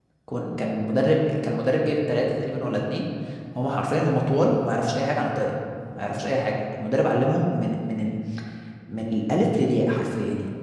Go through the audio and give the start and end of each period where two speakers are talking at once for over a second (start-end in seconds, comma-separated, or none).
none